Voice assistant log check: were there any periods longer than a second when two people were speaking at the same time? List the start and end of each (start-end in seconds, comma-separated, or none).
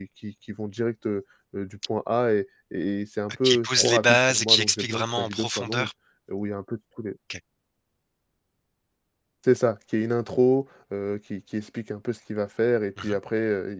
3.4-5.9